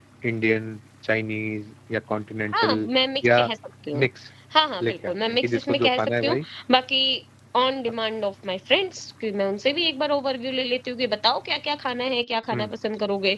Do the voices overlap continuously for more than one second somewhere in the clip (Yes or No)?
Yes